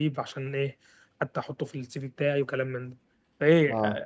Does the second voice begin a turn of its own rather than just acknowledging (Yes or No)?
No